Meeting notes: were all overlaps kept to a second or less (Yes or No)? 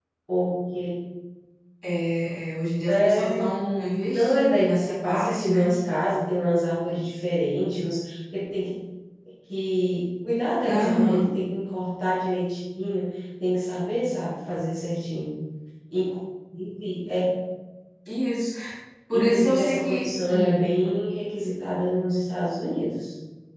No